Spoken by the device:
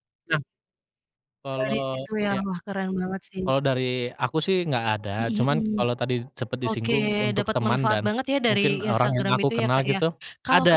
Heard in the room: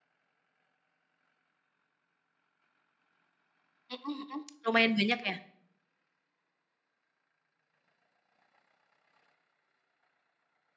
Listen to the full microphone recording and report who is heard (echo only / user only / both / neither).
user only